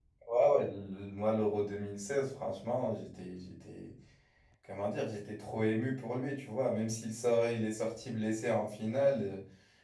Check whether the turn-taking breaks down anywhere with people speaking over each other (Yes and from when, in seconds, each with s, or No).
No